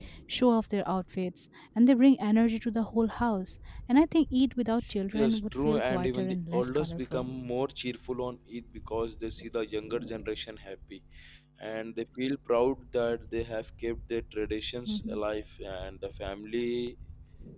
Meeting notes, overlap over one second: present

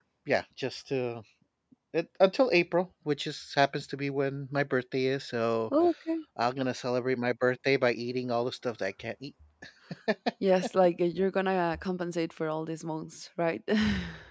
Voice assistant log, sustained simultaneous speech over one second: none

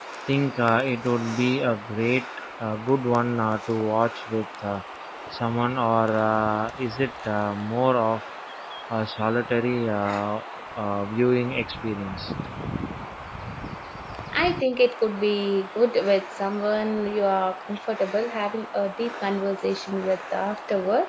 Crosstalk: none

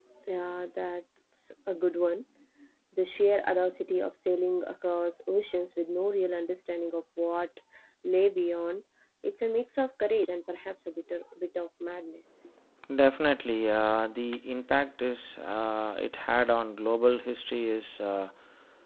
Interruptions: none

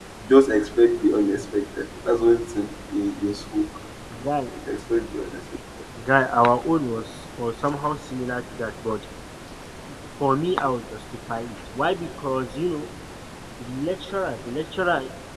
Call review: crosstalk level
none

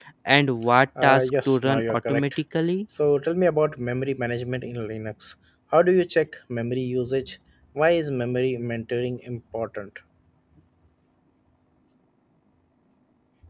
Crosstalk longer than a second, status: present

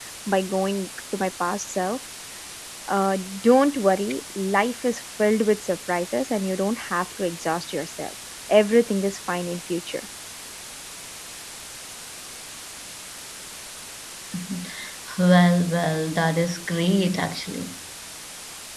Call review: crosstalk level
none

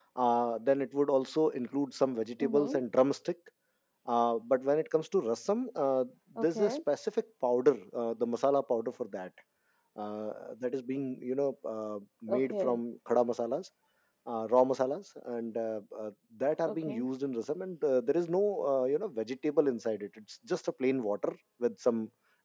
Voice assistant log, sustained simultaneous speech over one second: none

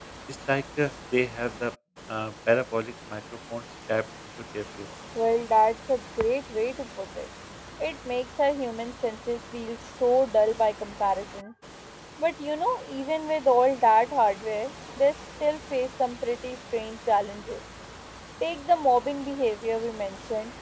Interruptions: none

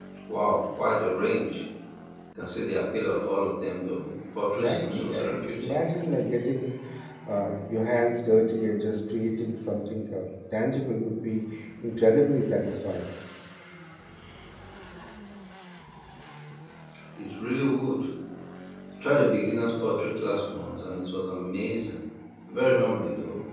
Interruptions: present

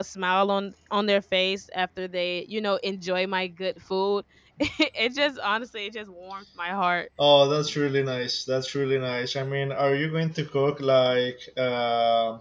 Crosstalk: none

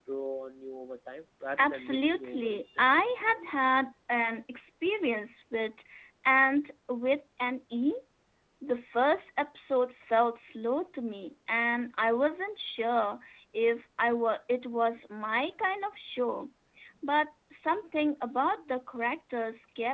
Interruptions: present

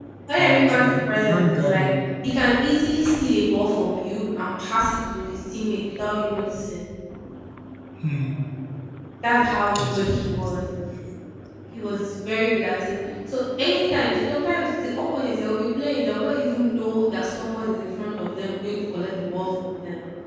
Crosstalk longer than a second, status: present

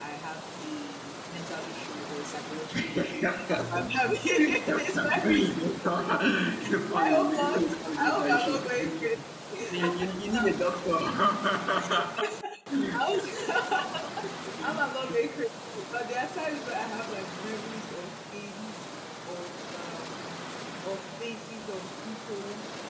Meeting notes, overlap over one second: present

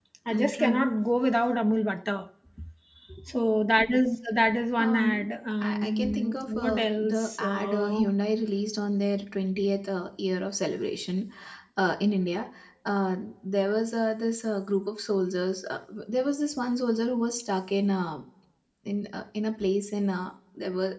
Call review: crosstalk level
present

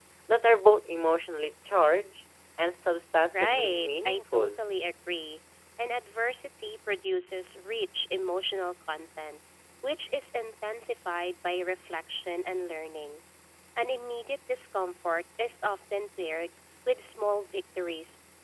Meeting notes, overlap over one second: present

